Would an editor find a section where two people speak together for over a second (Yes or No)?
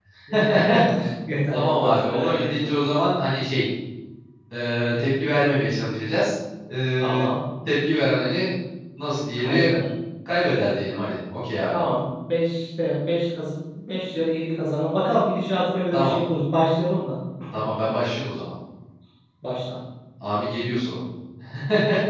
Yes